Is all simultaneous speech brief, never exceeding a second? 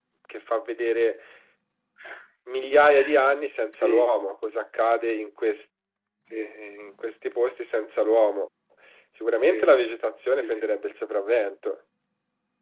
Yes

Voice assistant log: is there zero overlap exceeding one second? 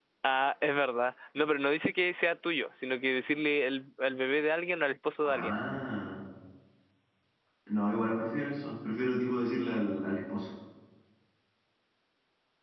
Yes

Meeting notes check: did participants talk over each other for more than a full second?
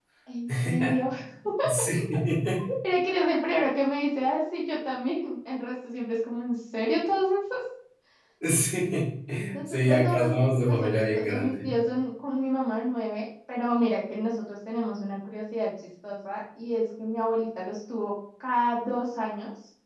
Yes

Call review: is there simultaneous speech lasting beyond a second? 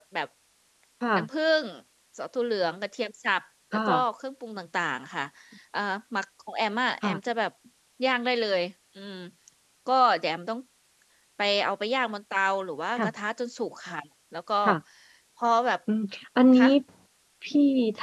No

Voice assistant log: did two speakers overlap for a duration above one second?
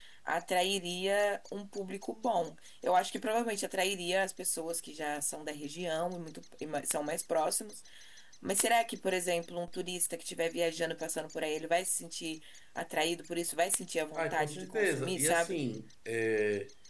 Yes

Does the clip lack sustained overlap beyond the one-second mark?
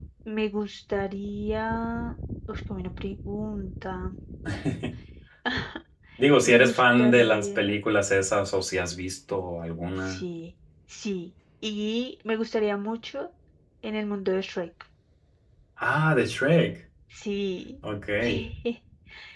No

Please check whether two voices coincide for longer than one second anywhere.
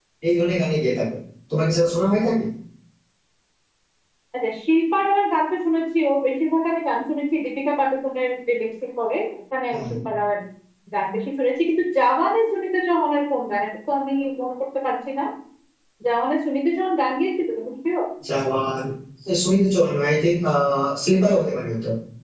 No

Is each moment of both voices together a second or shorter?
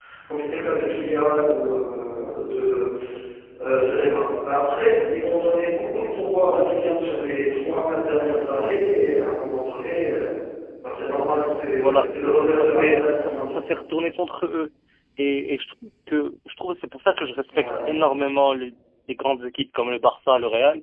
No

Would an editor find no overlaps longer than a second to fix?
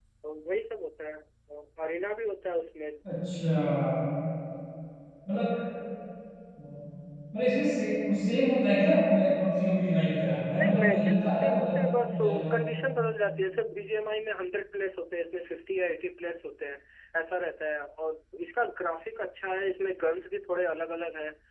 No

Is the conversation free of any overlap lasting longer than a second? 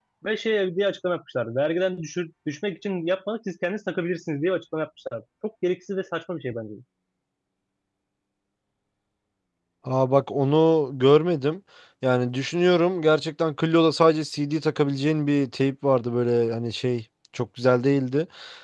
Yes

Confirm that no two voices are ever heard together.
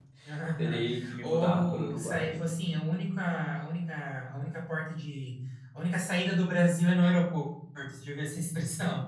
No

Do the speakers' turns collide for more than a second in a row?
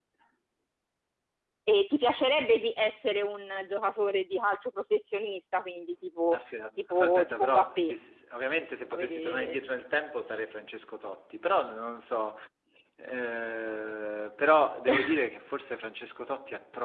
Yes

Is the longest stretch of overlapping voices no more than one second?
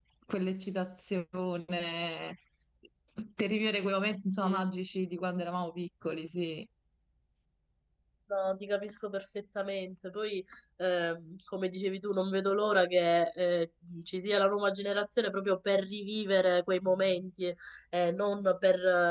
Yes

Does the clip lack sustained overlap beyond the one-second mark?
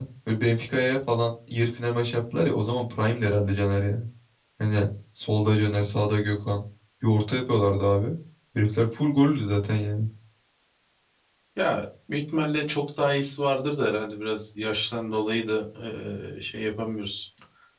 Yes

